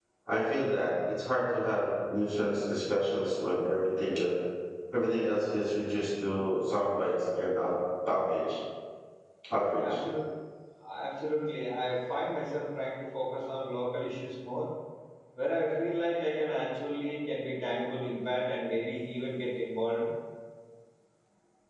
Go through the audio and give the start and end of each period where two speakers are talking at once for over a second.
none

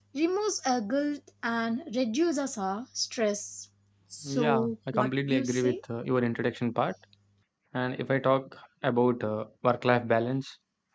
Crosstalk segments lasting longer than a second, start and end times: 4.2-5.8

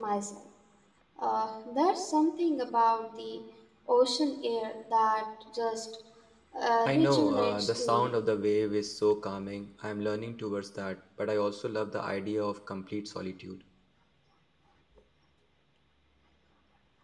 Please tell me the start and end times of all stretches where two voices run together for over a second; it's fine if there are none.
6.8-8.1

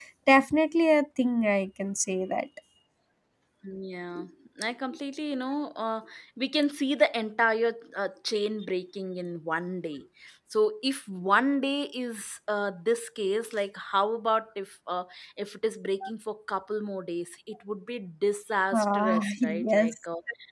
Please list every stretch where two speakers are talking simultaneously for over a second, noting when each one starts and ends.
18.7-19.9

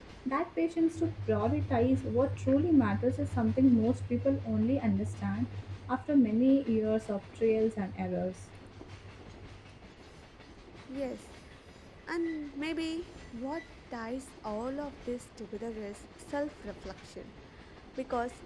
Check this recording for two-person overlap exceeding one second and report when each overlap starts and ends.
none

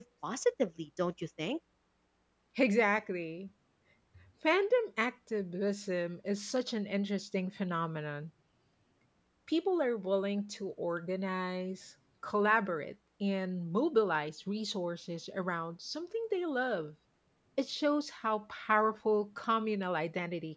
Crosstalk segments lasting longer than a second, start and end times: none

